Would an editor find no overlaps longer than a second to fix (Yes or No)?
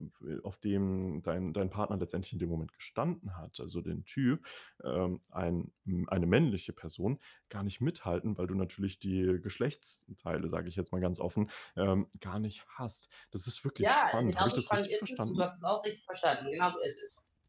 No